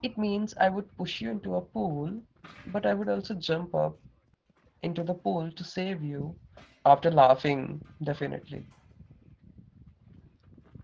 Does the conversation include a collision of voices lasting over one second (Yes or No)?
No